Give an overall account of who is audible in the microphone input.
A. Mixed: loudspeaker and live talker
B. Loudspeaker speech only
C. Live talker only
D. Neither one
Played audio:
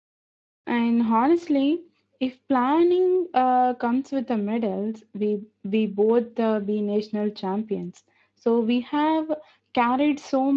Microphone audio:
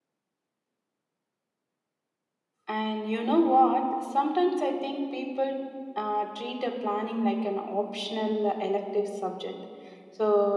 C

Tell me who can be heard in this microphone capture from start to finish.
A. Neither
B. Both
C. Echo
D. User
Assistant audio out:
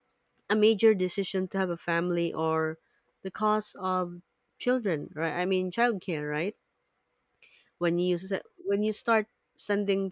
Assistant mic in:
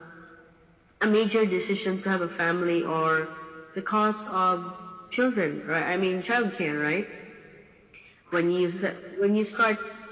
C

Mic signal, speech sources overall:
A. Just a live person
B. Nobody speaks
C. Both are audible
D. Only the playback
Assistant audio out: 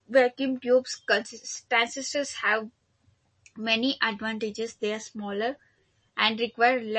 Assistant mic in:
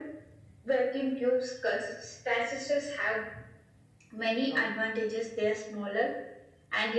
C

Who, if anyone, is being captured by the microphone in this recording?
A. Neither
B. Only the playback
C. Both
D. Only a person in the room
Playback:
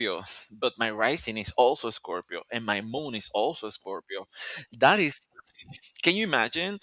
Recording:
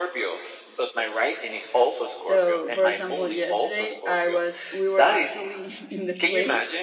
C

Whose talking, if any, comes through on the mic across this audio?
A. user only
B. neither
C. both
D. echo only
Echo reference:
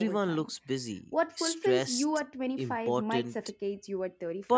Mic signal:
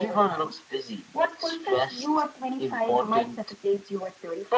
D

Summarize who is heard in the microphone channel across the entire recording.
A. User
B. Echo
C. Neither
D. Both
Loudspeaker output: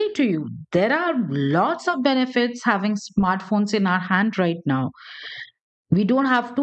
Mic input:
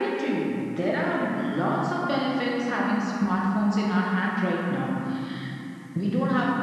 B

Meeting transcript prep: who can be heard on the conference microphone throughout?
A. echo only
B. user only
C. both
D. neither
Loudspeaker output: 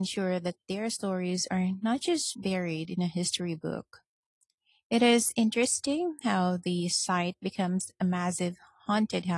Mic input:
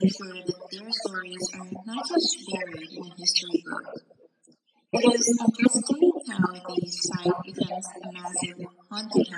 A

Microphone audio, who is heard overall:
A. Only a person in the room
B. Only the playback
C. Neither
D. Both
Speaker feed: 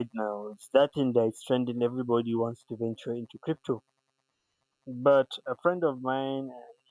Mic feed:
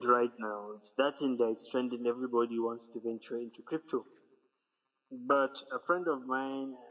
B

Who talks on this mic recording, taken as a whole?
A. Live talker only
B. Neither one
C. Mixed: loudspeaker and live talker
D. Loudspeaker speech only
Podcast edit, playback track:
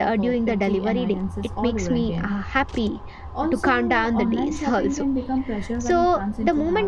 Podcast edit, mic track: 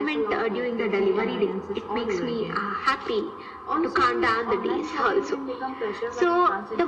D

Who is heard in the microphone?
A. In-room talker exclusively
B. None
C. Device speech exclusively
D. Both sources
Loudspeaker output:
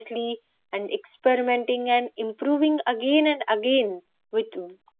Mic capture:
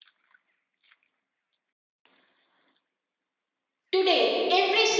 A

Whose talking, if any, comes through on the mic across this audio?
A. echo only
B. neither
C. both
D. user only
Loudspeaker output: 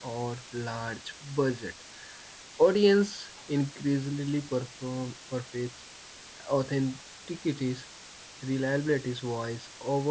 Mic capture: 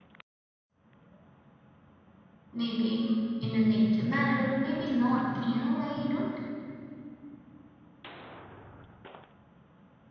D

